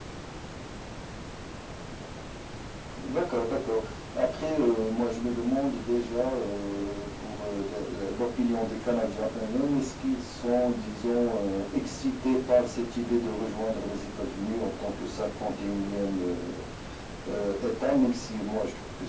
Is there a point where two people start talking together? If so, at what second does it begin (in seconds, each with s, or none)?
none